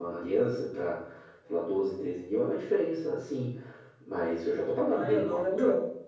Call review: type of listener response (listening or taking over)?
taking over